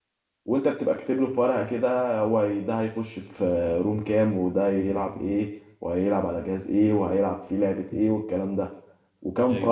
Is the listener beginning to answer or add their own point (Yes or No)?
No